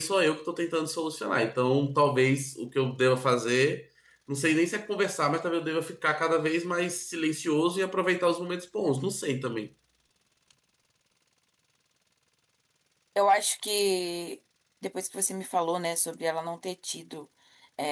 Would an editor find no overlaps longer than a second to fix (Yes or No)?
Yes